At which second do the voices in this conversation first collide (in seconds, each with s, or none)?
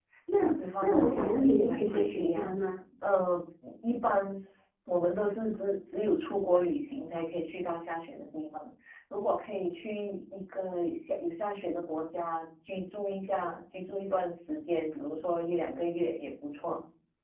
0.8 s